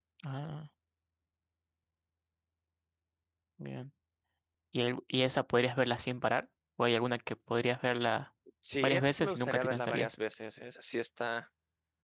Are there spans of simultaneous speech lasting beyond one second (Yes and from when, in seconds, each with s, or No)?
Yes, from 8.8 s